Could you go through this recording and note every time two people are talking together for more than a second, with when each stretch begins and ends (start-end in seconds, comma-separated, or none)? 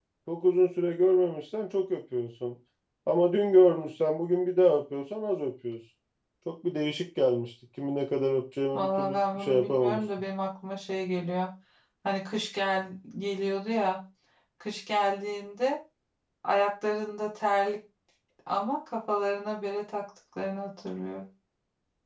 8.7-10.0